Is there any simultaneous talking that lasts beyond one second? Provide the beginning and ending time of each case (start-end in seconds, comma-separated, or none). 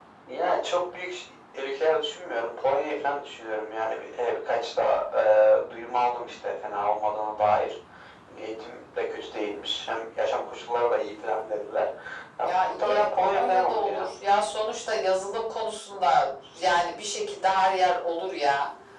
12.4-14.1